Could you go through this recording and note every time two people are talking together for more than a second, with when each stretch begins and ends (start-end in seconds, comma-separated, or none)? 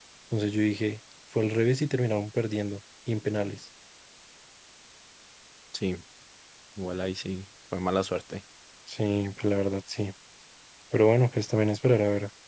none